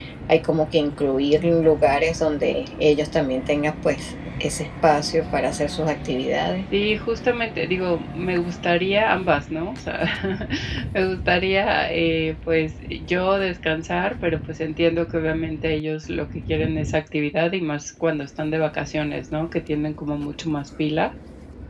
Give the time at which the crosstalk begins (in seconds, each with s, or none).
none